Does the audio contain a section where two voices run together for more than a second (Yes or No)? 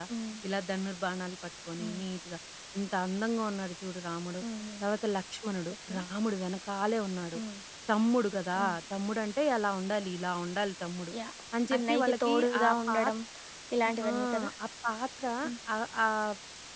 Yes